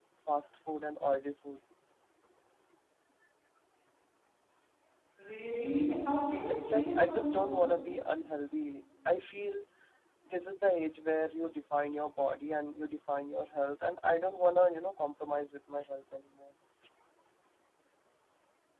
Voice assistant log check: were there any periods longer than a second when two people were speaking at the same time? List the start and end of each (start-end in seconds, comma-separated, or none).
6.5-7.9